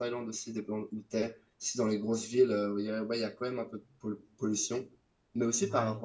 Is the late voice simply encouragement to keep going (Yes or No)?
Yes